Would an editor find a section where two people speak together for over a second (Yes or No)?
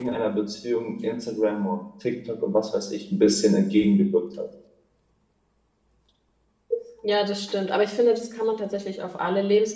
No